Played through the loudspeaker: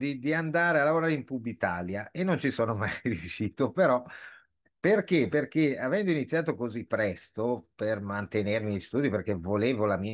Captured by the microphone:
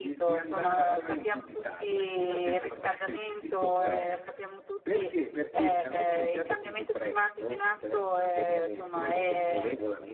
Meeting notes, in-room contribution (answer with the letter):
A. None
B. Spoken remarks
B